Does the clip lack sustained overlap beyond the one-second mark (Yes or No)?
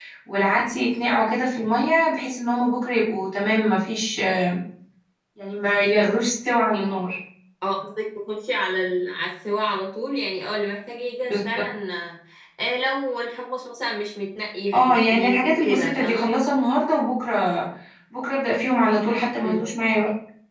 No